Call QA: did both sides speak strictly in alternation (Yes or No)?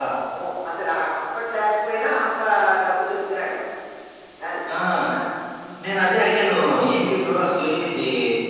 Yes